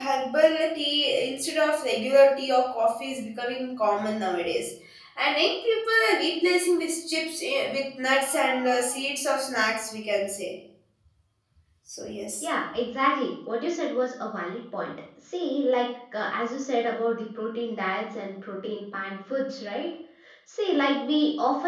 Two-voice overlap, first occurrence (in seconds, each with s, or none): none